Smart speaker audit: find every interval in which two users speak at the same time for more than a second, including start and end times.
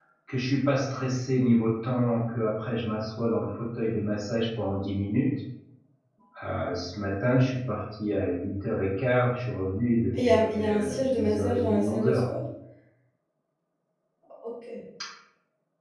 10.2-12.2

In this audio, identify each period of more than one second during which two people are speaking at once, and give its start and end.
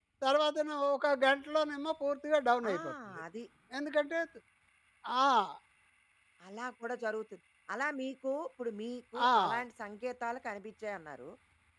none

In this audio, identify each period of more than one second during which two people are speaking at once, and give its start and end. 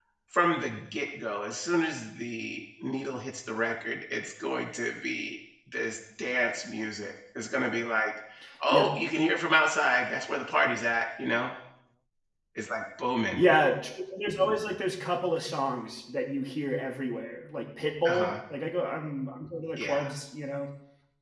none

